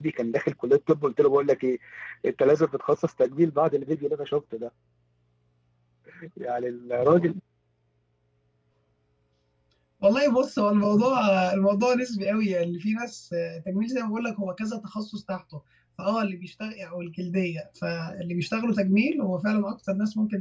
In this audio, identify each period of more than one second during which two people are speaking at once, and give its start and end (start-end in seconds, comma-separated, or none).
none